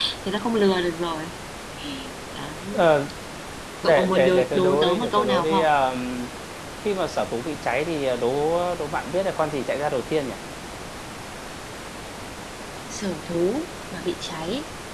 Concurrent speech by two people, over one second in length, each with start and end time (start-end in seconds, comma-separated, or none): 3.8-5.7